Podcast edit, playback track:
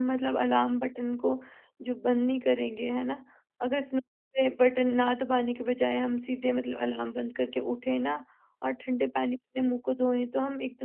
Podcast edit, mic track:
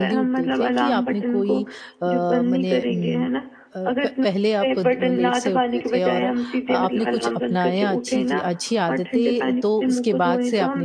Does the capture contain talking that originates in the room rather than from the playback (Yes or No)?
Yes